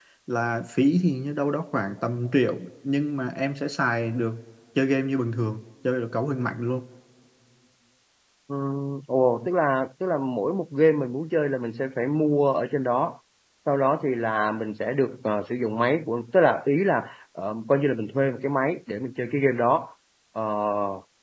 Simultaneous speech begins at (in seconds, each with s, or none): none